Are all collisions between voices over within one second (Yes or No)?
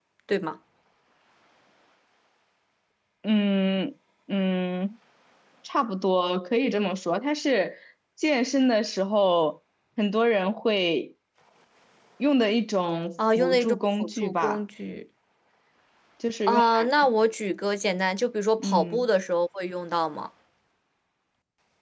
No